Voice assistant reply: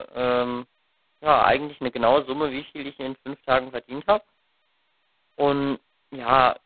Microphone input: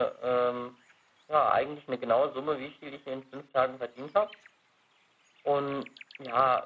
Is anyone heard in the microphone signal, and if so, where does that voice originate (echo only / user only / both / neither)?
echo only